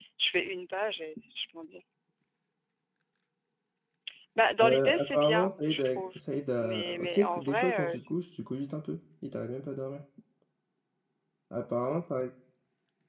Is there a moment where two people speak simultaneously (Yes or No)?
Yes